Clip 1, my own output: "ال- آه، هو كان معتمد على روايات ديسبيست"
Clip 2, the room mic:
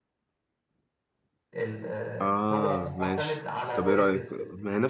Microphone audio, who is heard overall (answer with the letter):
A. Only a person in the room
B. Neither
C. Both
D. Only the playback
C